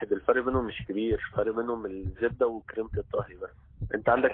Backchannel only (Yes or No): Yes